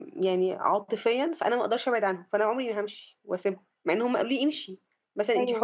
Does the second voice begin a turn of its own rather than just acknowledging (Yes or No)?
No